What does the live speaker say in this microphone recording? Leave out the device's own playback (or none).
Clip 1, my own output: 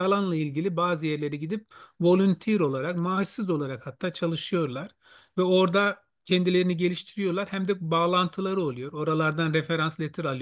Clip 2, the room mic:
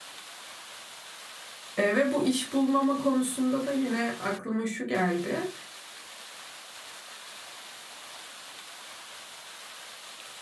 E, ve bu iş bulmama konusunda da yine aklıma şu geldi.